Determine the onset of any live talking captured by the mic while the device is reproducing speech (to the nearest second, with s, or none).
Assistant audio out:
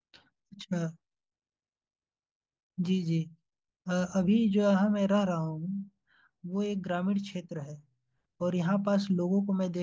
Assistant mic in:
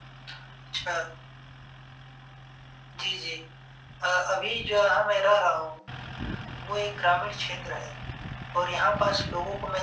none